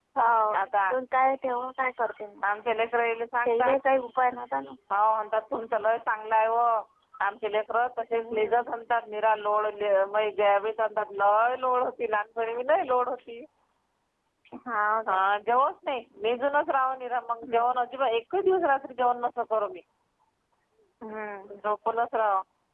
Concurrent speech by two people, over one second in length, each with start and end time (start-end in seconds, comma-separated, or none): none